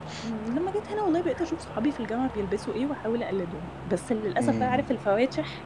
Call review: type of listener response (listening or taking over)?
listening